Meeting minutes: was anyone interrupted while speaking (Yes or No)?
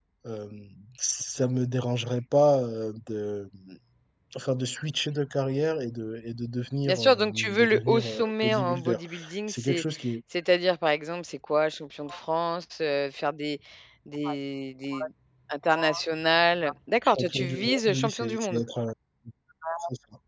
Yes